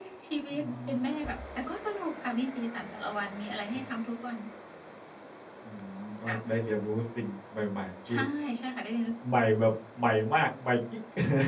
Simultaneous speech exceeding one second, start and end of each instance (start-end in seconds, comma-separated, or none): none